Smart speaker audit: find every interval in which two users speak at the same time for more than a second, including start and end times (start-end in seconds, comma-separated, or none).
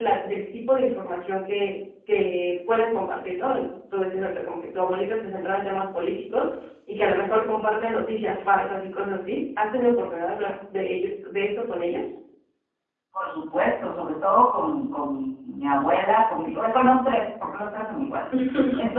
none